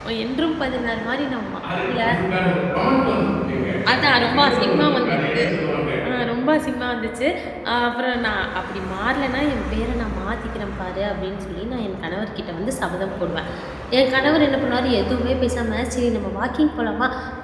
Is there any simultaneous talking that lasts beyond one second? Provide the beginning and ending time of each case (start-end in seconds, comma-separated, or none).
3.9-5.4